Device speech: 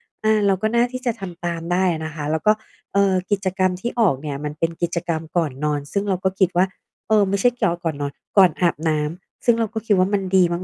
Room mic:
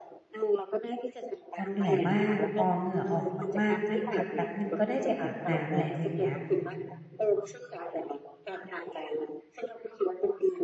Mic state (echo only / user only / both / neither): both